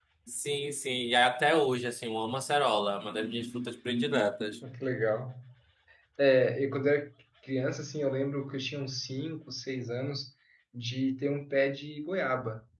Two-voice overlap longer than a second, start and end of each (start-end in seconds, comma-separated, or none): none